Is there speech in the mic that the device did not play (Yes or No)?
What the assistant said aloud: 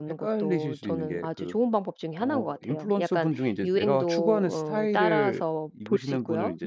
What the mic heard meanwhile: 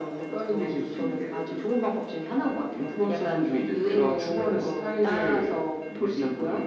No